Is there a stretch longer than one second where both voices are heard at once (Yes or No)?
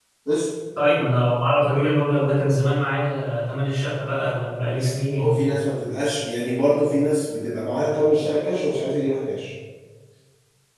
No